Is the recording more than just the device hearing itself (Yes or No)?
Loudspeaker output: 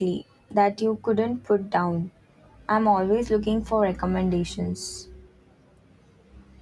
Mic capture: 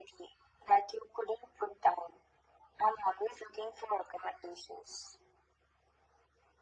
No